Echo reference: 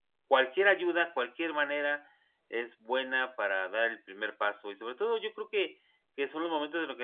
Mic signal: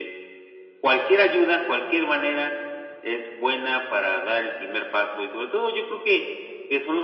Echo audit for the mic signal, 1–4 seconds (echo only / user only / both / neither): echo only